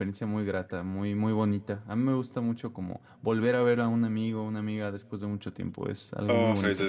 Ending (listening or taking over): taking over